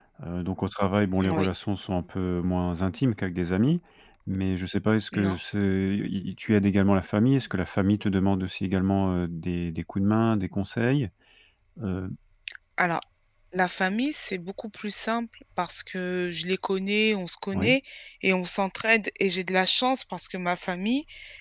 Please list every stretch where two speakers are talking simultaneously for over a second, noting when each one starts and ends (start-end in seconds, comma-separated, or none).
none